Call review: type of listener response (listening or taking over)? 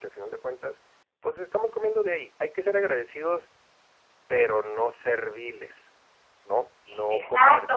taking over